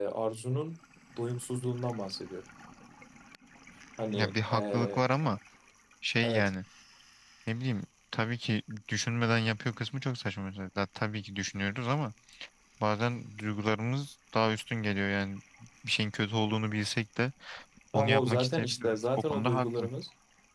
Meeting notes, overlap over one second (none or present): present